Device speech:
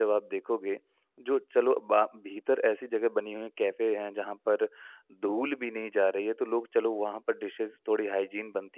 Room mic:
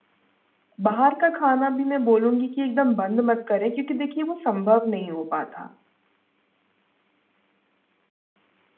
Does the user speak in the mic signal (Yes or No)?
Yes